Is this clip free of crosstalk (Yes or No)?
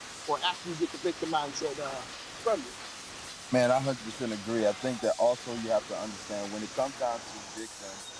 Yes